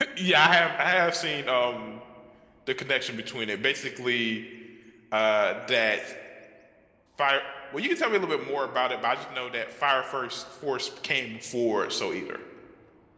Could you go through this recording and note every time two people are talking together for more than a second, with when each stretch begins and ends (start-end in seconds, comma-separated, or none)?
none